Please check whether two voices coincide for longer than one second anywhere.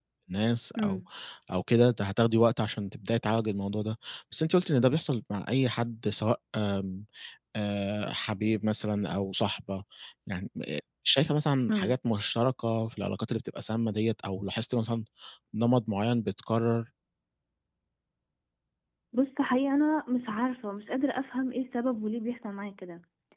No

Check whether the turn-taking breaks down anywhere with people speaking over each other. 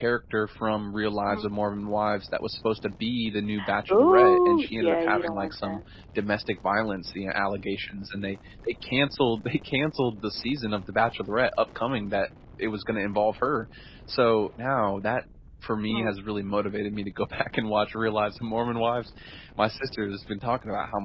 Yes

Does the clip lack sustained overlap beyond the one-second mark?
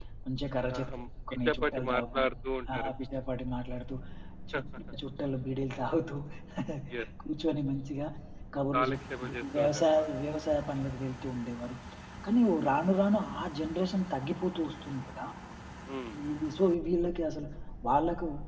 No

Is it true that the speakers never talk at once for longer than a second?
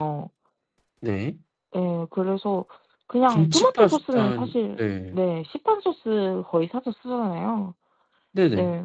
No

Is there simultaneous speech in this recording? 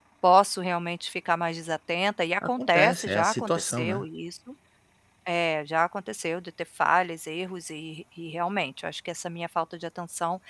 Yes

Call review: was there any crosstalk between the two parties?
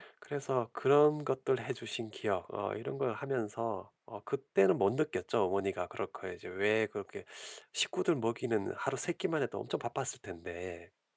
No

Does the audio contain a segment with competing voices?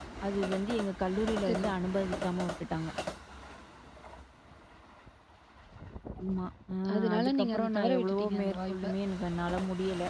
Yes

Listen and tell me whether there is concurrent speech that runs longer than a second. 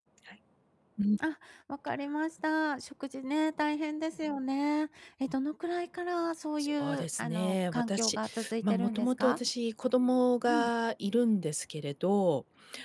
Yes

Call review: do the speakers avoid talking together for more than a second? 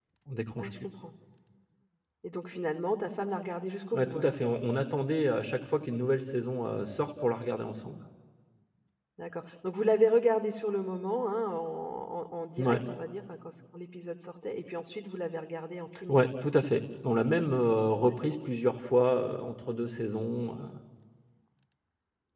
Yes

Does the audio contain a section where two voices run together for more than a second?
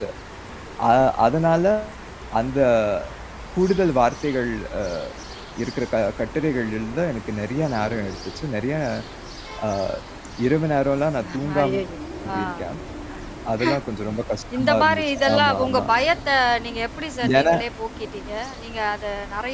Yes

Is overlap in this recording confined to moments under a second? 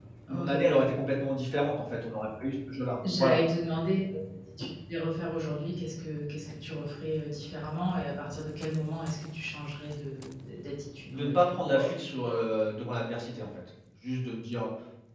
Yes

